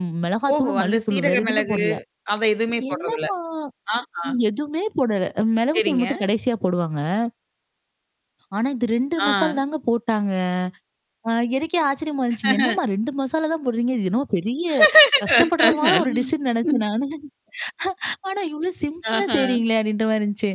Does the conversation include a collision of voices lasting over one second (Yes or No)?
Yes